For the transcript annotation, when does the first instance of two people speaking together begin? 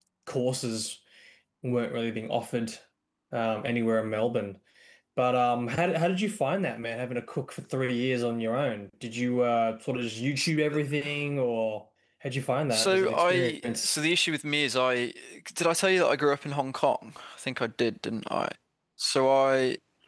12.7 s

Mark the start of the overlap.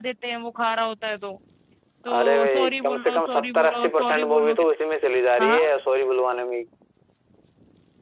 2.2 s

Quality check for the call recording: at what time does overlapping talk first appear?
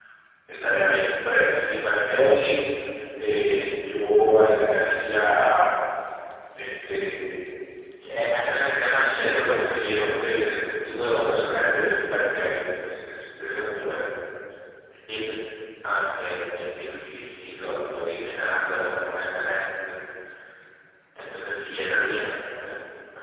8.9 s

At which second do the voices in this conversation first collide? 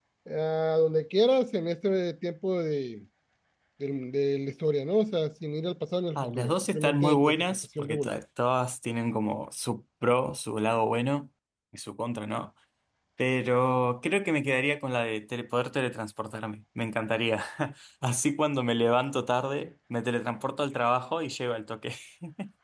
6.2 s

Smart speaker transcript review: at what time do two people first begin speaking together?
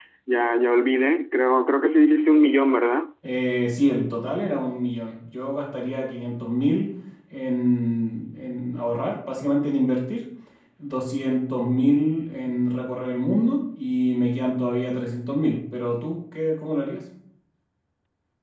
none

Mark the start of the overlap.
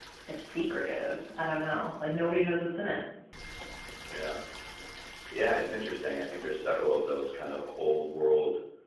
none

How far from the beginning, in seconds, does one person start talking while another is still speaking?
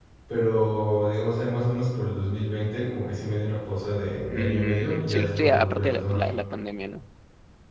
4.3 s

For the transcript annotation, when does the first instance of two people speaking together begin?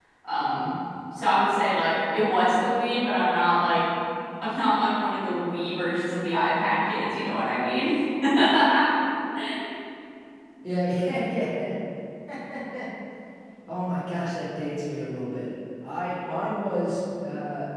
none

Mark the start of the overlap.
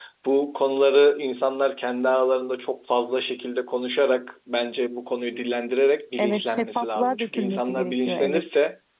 6.2 s

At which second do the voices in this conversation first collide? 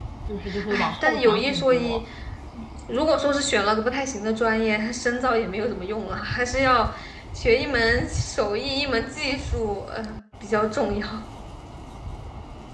0.7 s

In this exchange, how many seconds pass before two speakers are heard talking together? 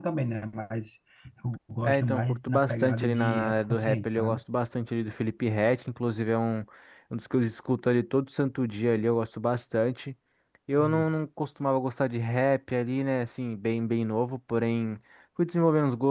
1.8 s

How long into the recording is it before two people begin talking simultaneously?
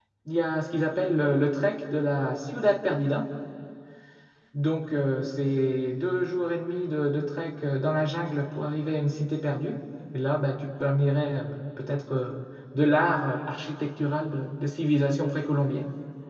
none

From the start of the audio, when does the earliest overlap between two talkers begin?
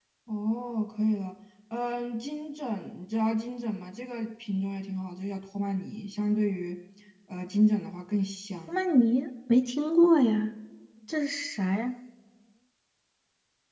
none

